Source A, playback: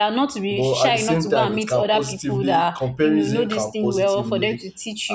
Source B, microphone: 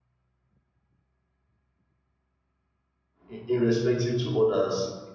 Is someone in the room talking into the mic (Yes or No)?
Yes